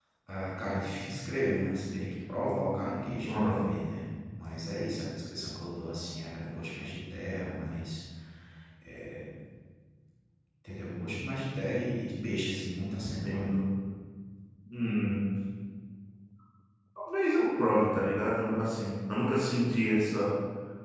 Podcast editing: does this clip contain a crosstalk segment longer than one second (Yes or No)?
No